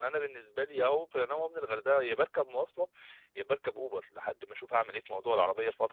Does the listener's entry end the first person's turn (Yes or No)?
No